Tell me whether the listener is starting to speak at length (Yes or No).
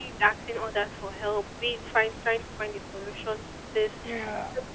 No